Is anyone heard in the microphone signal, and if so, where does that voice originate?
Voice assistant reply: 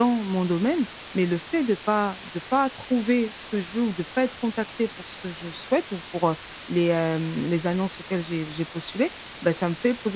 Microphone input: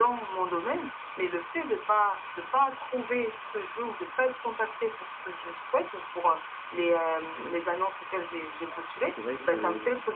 both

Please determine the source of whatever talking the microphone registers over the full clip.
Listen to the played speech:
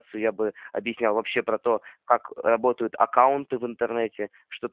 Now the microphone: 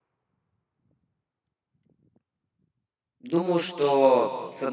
user only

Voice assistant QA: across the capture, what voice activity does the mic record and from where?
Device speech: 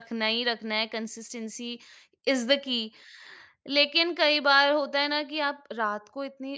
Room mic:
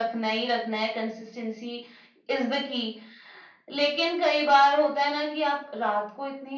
echo only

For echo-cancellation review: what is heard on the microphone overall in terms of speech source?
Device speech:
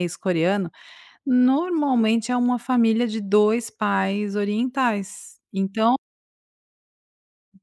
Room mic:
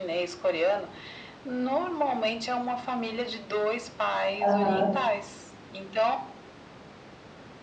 both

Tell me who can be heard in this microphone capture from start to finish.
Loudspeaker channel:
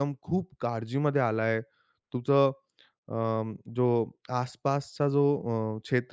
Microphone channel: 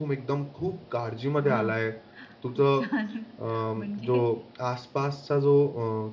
both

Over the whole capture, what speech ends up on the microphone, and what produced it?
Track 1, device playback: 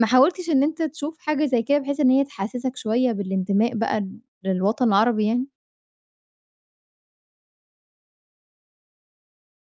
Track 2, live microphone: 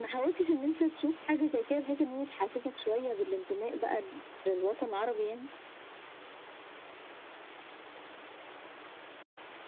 echo only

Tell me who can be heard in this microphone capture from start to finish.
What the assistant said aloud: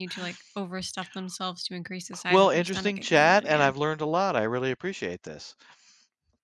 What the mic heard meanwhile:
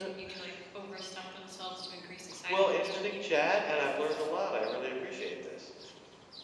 echo only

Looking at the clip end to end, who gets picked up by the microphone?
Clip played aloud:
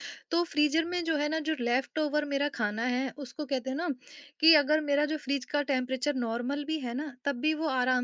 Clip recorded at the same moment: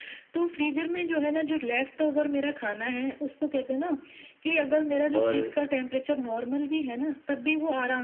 both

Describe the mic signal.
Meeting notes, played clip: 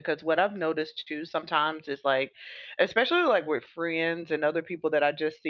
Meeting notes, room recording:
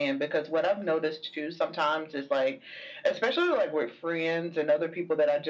echo only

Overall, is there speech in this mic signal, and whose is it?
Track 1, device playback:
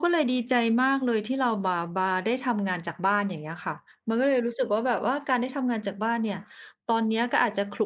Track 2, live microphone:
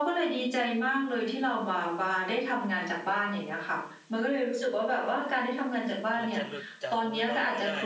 both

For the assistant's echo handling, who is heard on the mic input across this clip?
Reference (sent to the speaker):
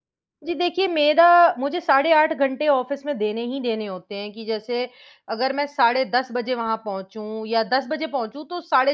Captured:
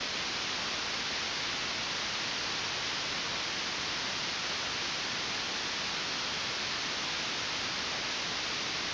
neither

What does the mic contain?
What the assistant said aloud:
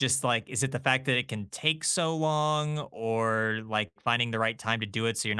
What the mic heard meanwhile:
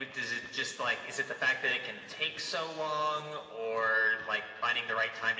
echo only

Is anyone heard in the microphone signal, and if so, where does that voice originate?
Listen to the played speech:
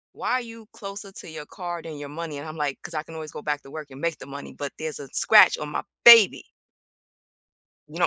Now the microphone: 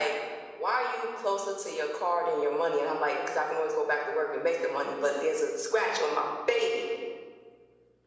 echo only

